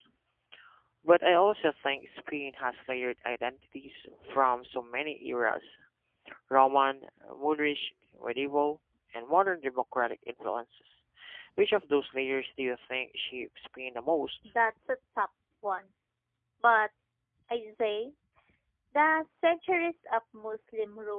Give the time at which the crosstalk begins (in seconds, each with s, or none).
none